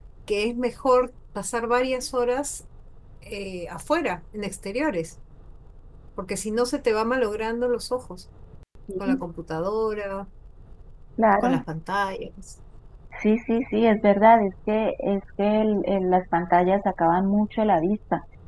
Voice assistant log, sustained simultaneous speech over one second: none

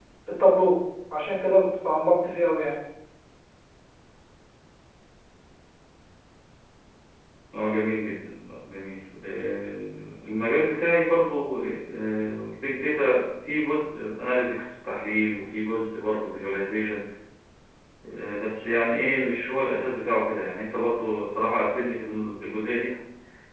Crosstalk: none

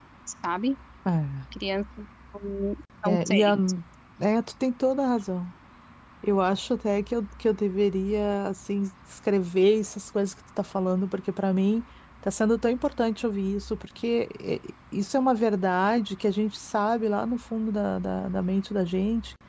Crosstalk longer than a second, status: none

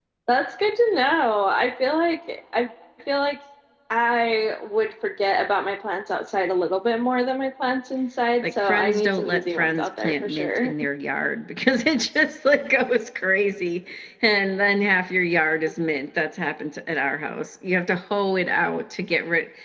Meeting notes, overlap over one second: present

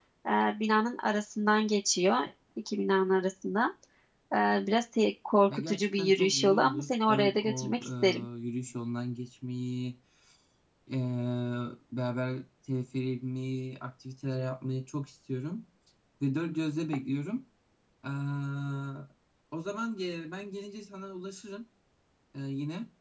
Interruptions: present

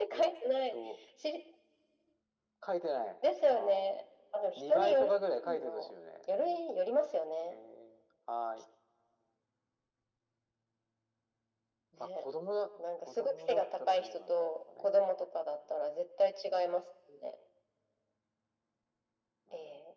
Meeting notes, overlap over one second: present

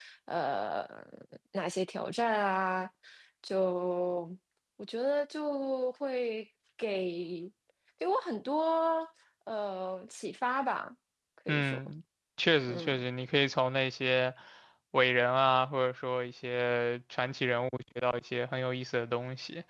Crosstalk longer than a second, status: none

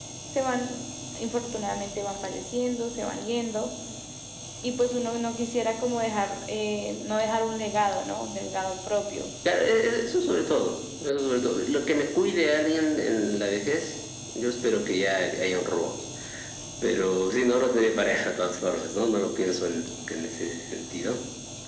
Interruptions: none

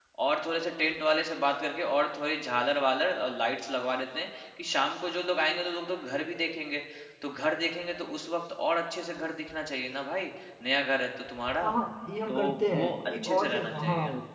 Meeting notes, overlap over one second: present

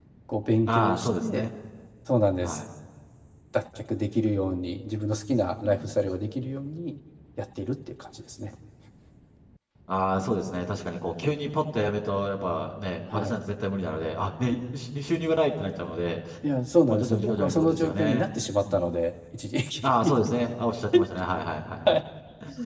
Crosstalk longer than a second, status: present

